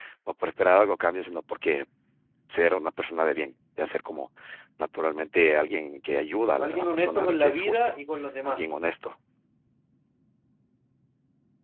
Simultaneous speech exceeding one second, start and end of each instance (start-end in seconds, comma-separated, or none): 6.6-7.9